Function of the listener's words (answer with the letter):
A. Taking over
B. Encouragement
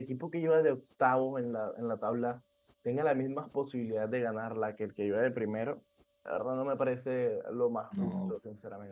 A